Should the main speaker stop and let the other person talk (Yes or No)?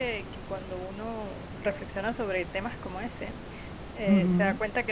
No